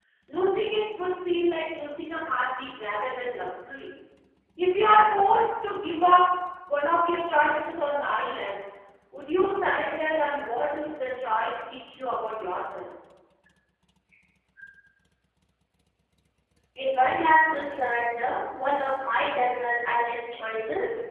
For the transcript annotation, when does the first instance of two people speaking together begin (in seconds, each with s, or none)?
none